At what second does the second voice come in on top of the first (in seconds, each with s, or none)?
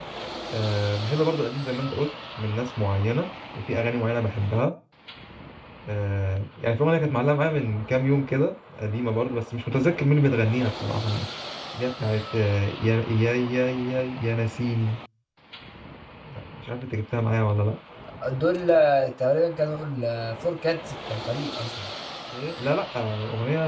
none